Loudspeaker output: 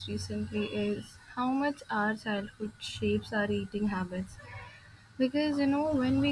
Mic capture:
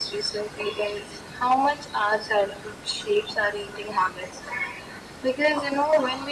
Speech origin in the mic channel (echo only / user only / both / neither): echo only